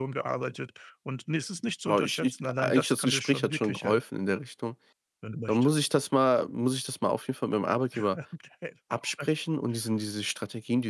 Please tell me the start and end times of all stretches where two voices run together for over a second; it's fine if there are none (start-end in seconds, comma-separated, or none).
1.9-4.0